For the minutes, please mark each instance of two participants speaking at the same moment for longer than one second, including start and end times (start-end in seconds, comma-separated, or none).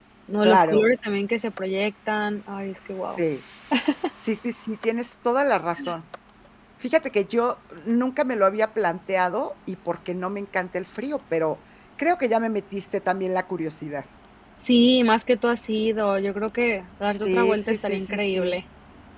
17.1-18.6